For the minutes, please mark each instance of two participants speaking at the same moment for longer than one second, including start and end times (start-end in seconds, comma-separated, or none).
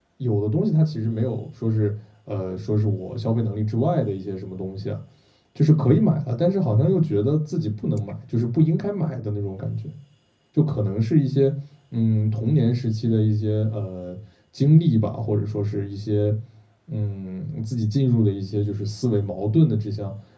none